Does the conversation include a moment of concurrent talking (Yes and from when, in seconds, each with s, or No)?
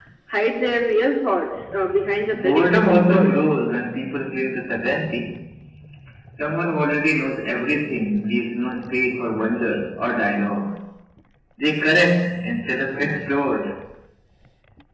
Yes, from 2.3 s